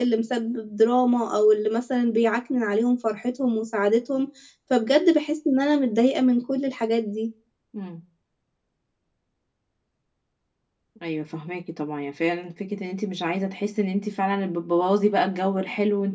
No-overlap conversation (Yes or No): Yes